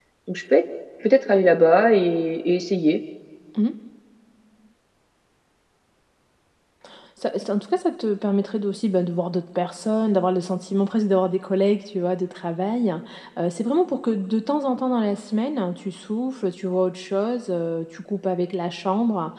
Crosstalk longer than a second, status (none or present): none